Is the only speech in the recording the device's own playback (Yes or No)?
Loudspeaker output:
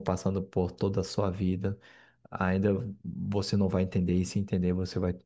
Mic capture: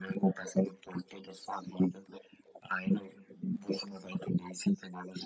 Yes